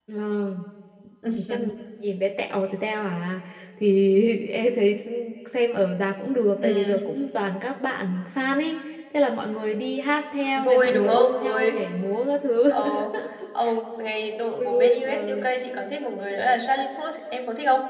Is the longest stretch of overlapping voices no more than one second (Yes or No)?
No